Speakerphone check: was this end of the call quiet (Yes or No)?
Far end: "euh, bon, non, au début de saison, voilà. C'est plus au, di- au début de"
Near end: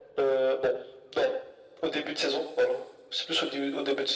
Yes